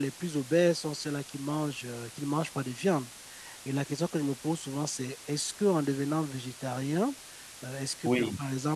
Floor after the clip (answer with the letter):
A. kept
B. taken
A